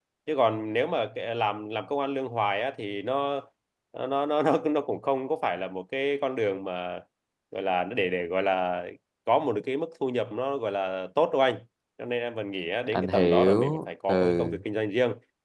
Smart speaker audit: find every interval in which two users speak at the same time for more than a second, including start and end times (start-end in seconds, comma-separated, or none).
12.9-14.6